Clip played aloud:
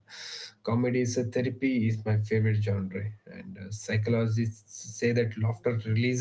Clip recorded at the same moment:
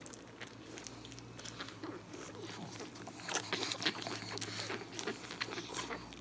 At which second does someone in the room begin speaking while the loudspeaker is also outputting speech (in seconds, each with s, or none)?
none